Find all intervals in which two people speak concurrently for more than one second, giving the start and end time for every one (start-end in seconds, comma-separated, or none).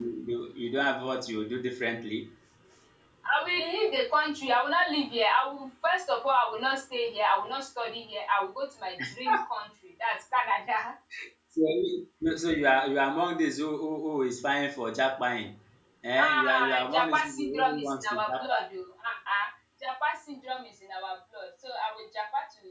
16.2-18.6